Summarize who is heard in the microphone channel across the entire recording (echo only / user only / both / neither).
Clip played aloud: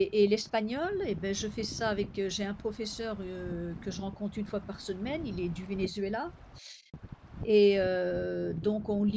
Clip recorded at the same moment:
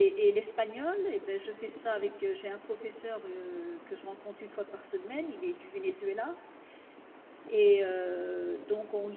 echo only